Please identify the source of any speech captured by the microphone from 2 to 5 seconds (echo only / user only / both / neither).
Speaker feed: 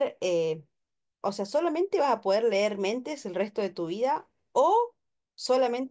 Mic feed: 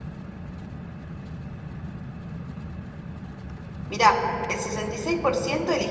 user only